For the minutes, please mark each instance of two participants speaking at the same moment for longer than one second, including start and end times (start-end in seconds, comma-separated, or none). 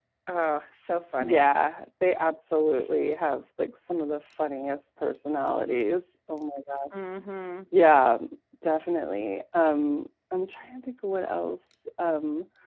none